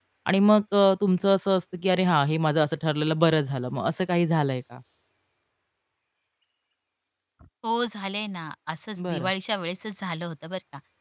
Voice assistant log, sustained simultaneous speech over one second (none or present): none